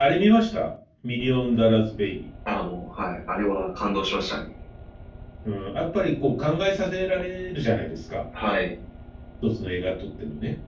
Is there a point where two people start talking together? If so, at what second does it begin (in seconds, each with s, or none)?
none